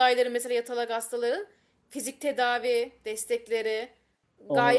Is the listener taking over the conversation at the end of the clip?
Yes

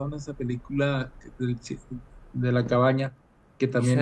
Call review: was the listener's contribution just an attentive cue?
No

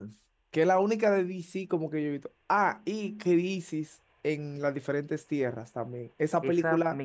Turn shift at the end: Yes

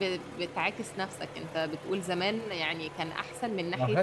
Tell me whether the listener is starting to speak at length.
Yes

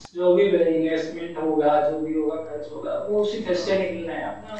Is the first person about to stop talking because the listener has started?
No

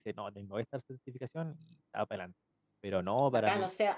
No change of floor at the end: No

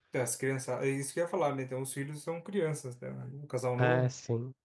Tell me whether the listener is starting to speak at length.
Yes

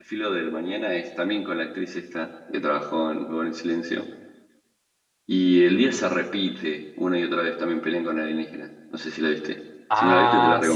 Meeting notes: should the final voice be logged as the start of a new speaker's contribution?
Yes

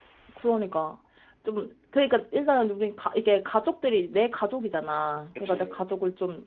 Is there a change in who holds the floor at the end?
No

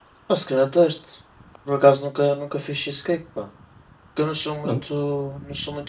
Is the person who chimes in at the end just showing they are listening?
Yes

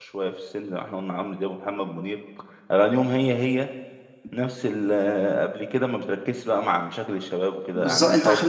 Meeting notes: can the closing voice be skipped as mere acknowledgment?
No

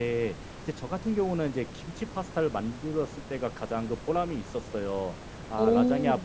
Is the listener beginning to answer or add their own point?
No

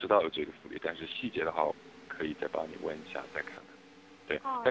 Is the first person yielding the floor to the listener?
Yes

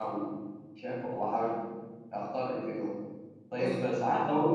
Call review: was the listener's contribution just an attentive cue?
Yes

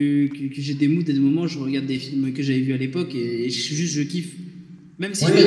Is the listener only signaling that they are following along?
No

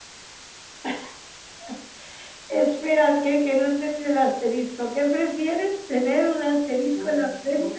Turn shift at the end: Yes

